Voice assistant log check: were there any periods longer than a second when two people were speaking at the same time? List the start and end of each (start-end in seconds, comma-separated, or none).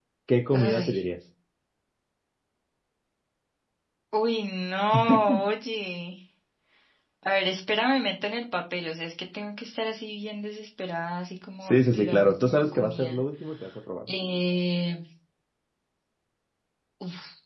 11.6-13.2